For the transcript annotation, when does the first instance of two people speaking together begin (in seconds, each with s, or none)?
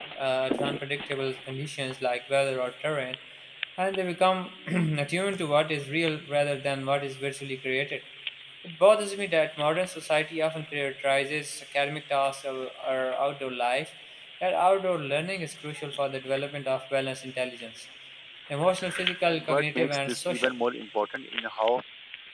19.3 s